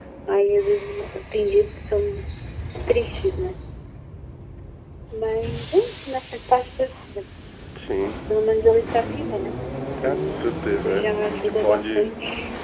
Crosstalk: present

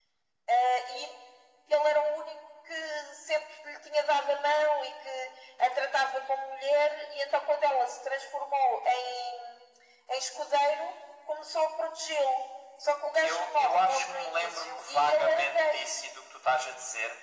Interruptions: present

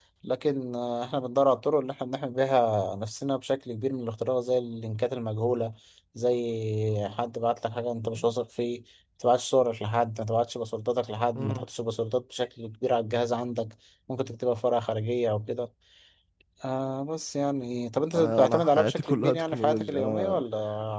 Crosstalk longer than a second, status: present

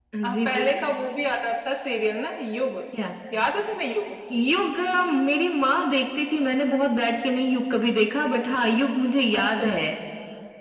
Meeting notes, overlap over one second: none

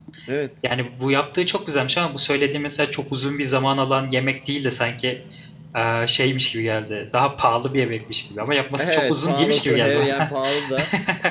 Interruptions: present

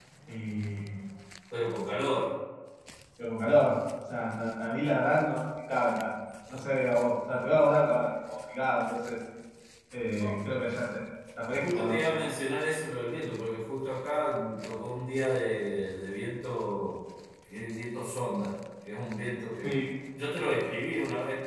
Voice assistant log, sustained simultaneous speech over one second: none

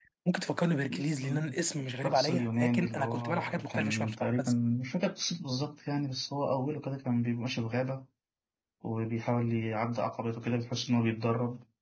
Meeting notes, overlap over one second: present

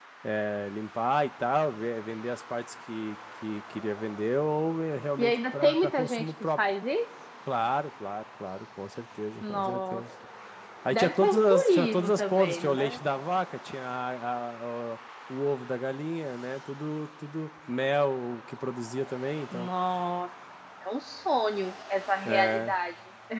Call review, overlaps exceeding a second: present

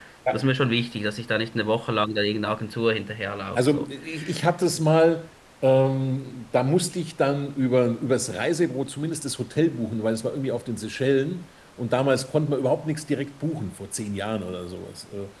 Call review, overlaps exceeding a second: none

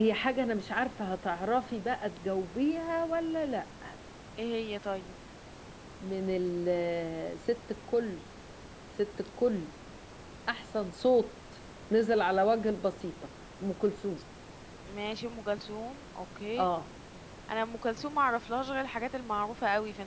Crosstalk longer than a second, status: none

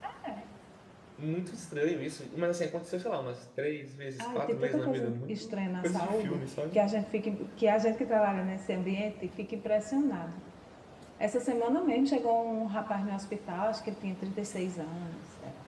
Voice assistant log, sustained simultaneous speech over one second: present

